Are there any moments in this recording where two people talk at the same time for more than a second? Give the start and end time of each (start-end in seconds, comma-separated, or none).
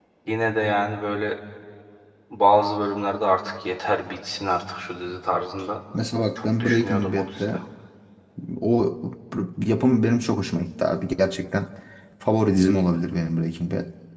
6.3-7.6